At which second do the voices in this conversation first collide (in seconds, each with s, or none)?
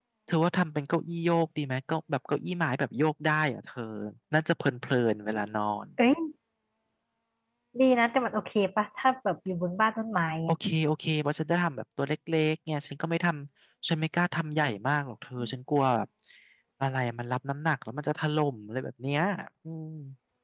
none